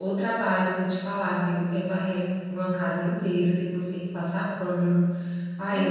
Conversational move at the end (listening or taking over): taking over